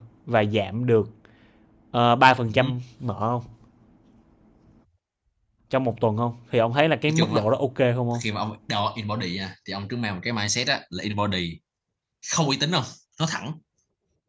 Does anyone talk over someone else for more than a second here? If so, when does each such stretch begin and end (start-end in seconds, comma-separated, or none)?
none